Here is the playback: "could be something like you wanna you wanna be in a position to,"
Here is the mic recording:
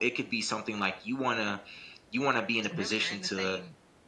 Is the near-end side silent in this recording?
No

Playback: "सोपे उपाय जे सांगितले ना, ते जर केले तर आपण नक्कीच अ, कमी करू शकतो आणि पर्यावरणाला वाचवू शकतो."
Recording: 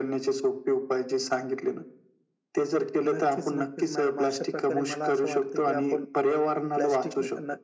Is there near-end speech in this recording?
Yes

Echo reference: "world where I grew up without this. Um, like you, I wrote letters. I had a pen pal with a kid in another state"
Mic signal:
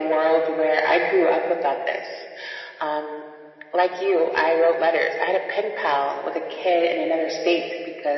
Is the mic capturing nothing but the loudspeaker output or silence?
Yes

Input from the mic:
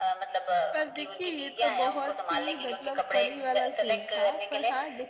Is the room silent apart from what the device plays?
No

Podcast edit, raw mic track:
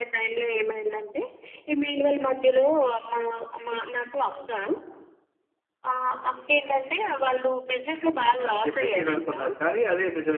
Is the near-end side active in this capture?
Yes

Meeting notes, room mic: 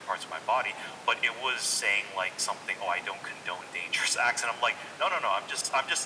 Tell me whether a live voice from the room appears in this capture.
No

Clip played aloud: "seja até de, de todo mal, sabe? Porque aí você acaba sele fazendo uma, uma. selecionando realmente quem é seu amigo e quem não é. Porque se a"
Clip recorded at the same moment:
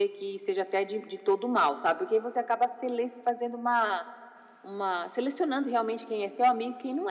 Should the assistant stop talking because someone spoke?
No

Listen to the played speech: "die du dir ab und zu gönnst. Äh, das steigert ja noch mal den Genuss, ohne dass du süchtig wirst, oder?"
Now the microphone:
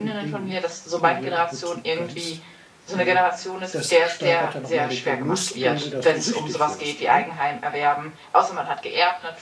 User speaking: Yes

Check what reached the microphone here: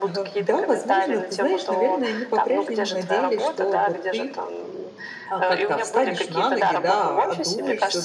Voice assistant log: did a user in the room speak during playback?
Yes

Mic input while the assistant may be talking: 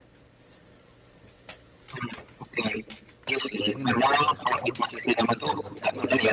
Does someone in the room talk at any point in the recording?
Yes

